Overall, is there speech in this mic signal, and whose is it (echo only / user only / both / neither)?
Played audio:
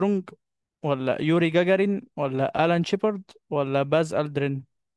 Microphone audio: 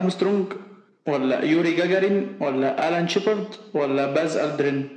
echo only